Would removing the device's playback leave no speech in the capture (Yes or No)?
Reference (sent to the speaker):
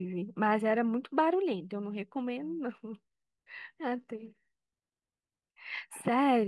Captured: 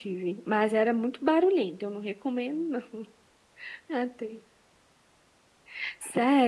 Yes